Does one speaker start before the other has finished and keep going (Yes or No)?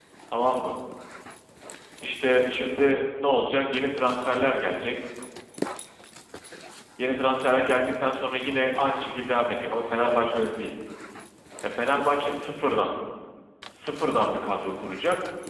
No